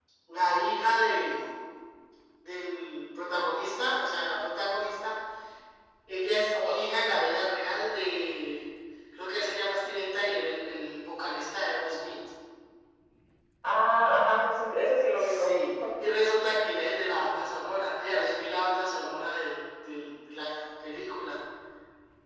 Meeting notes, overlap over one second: none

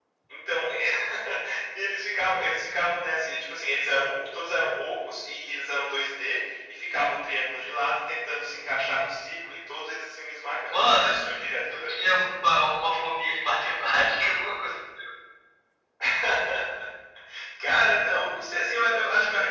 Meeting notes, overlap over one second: none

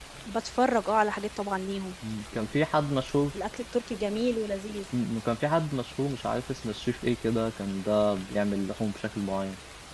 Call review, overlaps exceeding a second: none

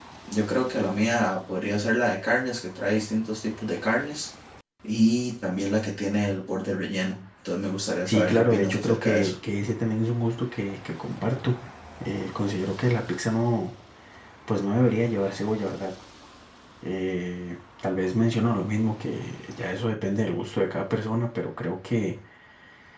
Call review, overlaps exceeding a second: present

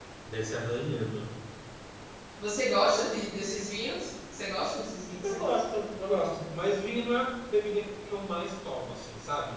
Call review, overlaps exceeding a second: none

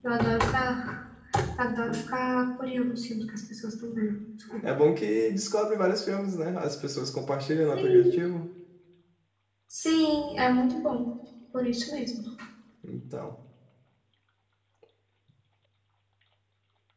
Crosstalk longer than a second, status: none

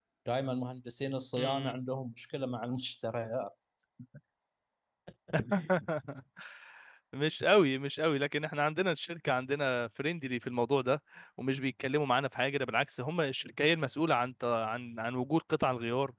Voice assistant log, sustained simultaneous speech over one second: none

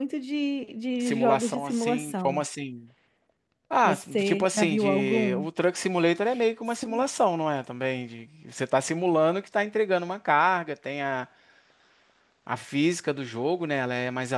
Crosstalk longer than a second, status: present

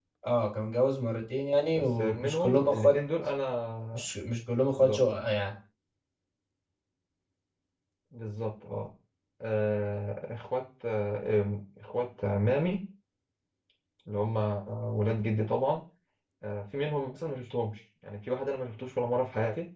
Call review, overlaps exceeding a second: present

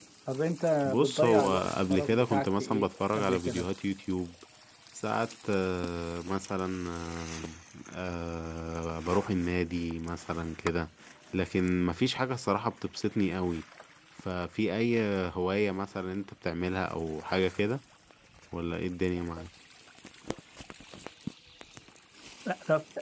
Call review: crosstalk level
present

